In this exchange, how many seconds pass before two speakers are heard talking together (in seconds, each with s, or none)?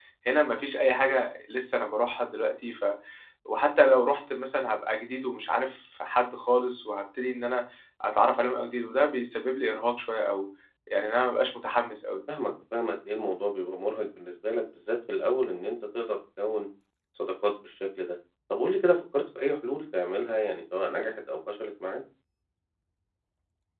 none